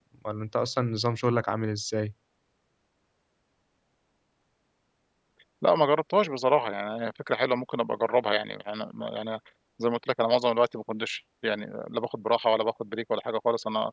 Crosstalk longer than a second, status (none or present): none